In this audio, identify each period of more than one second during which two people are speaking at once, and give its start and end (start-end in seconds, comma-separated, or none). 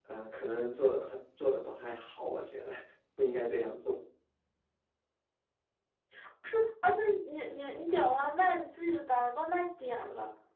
none